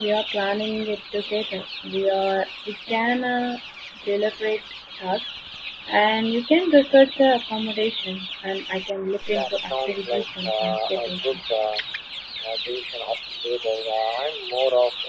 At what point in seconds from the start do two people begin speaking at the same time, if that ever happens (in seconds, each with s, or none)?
9.3 s